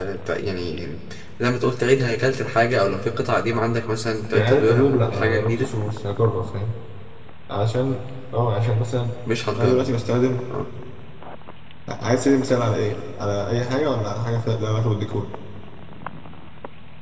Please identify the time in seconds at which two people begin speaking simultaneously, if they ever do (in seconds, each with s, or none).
4.3 s